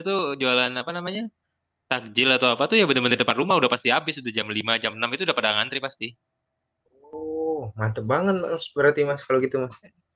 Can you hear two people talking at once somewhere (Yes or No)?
No